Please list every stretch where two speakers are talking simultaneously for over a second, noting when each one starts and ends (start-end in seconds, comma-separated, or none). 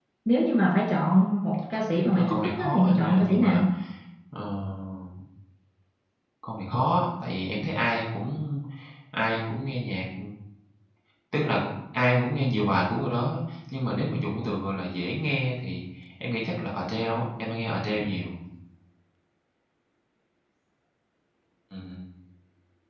1.9-3.6